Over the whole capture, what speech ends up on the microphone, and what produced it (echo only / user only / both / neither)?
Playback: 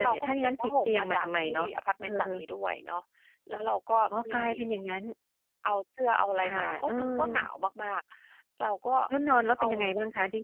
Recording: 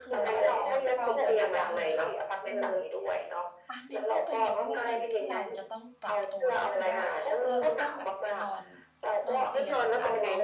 both